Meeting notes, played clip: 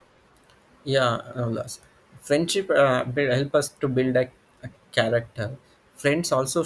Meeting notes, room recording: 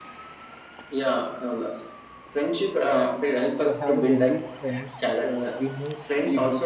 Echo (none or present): present